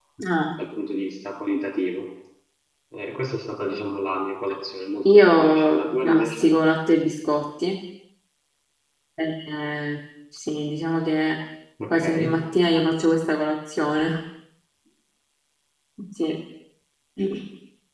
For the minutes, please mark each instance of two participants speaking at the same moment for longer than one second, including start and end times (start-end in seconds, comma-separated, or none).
5.1-6.5